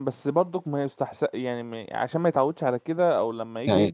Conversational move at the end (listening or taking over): listening